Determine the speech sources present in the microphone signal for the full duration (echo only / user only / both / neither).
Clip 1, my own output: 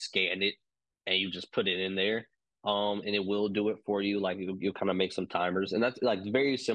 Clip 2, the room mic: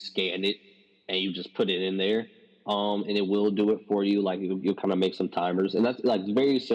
echo only